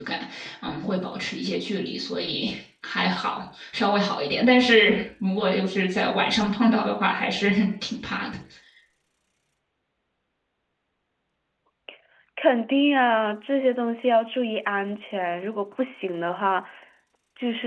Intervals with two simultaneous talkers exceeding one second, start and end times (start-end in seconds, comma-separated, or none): none